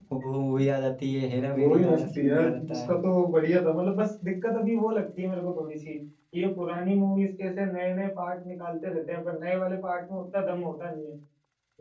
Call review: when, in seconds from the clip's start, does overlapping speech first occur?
1.5 s

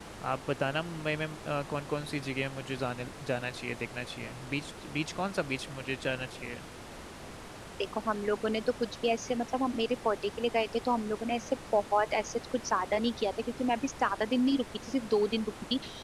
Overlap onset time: none

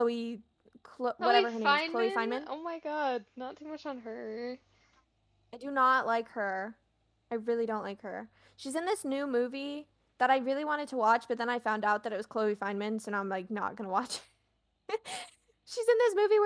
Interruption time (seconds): 1.2 s

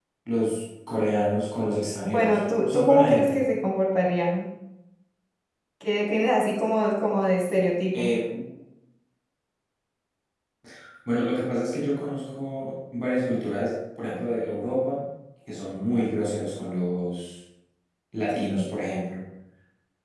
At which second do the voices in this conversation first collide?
2.0 s

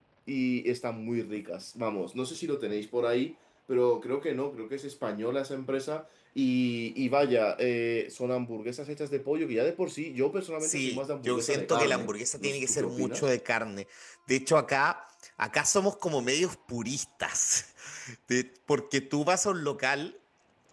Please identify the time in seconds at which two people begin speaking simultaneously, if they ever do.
10.6 s

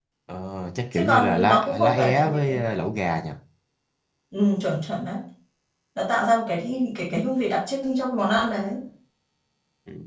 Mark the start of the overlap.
0.9 s

